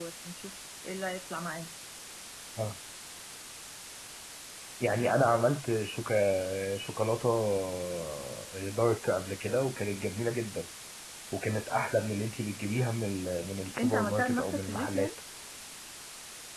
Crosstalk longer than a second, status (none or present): present